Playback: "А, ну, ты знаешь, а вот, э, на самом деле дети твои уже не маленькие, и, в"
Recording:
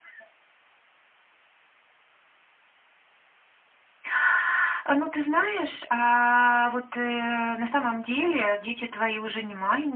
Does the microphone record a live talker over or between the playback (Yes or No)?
No